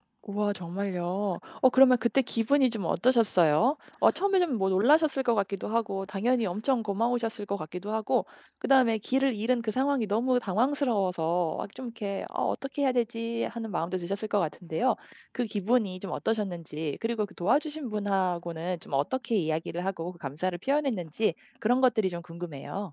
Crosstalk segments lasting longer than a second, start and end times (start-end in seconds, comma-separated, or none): none